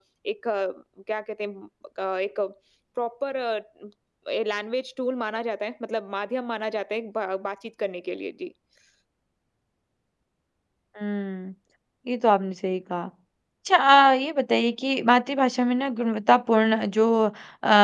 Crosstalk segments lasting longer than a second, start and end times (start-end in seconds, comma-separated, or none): none